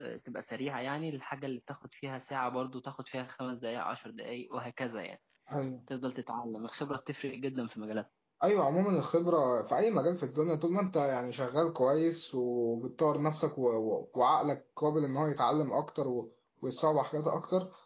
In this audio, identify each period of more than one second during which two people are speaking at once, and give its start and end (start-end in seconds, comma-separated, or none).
none